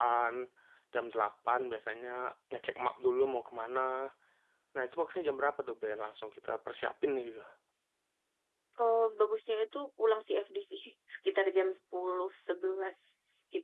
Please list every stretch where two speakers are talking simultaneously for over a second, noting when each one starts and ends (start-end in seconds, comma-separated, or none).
none